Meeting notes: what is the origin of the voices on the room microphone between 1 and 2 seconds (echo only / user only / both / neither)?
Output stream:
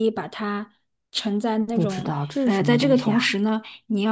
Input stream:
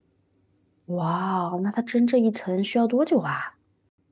user only